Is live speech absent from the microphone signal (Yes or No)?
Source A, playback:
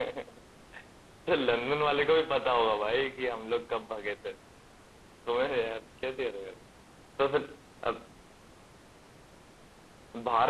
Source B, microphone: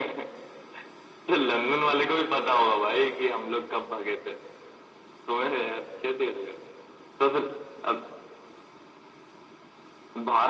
Yes